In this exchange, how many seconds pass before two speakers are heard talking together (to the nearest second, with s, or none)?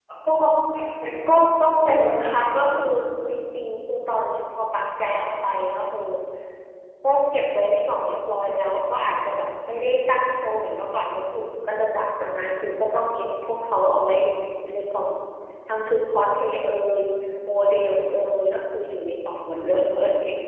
1 s